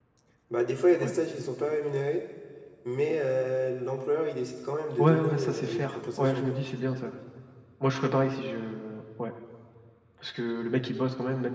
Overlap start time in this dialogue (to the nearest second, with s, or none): 5 s